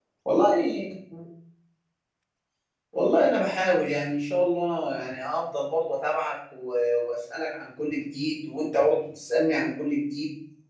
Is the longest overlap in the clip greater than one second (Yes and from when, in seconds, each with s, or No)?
No